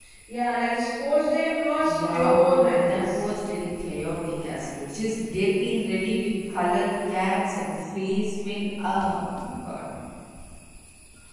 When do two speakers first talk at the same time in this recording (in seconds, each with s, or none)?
1.9 s